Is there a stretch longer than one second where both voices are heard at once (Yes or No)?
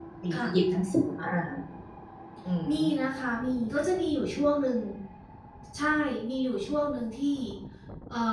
No